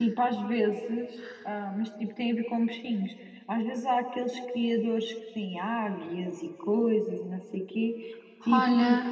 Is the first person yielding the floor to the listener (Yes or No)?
No